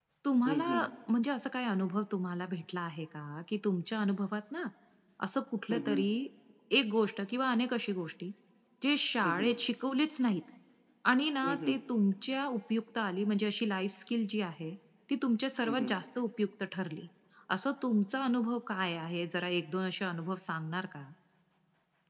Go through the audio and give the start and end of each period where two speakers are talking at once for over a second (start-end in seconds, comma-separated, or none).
none